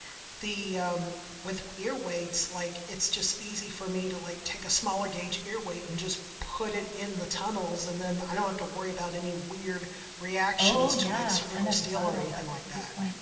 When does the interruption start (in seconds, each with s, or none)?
10.6 s